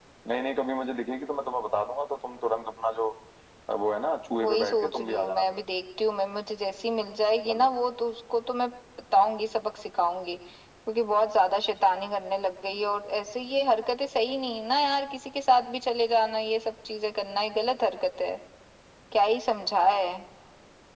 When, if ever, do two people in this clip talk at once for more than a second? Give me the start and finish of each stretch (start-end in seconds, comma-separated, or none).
4.4-5.6